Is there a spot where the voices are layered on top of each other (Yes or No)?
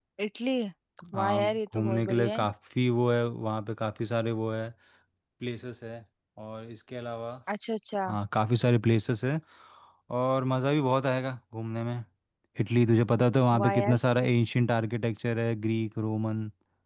Yes